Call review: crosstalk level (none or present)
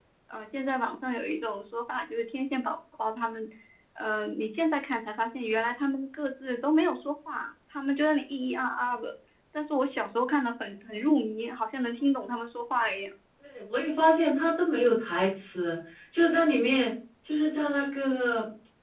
none